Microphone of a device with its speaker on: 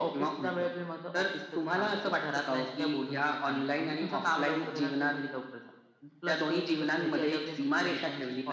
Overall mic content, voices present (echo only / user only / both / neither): echo only